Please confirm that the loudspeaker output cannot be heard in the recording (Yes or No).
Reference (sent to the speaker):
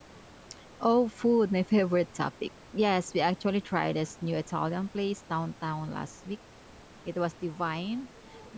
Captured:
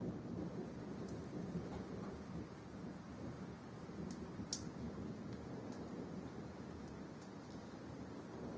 Yes